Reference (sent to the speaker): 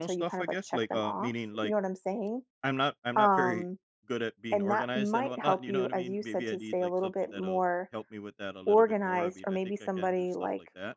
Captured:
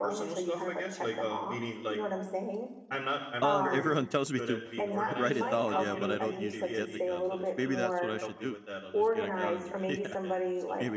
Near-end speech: present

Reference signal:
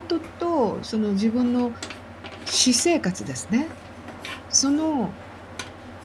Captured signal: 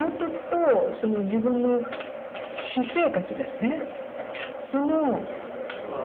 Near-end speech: present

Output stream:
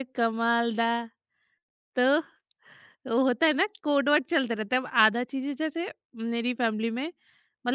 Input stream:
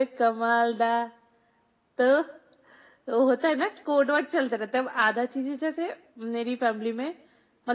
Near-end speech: none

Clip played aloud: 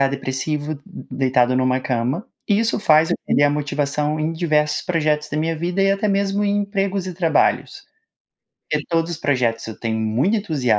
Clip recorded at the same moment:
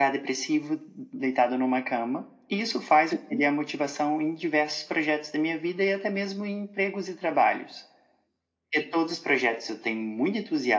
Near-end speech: none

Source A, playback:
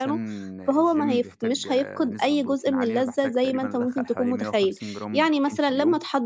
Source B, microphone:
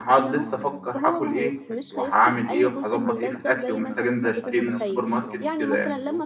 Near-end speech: present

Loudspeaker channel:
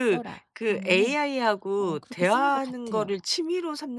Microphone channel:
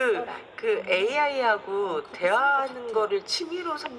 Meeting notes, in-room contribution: none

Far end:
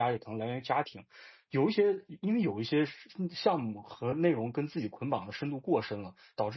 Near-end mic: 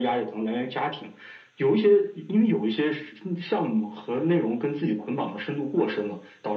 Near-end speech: none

